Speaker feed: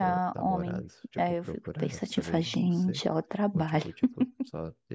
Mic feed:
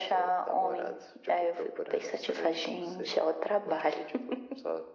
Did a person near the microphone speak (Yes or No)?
No